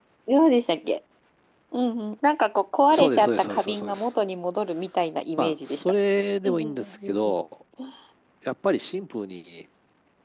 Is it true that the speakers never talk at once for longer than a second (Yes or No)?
No